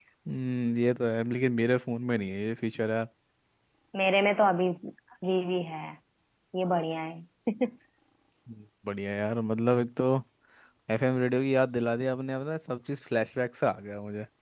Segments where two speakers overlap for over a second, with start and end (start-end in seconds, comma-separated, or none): none